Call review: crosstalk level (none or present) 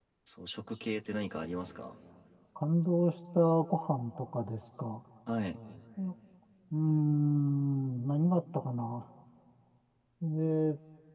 none